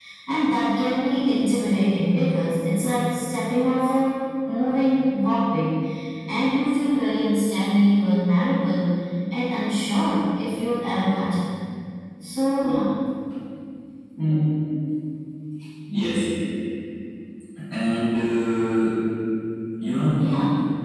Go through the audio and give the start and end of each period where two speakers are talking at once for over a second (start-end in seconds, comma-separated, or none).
none